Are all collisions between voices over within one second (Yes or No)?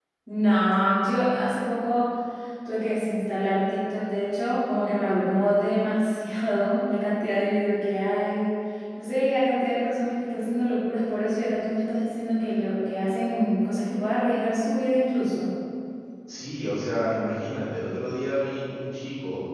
Yes